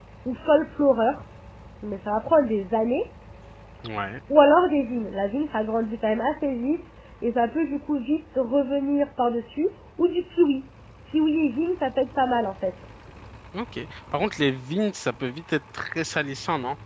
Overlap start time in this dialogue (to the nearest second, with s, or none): none